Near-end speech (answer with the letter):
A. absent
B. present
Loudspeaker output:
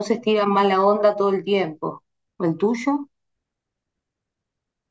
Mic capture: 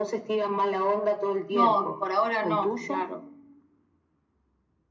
B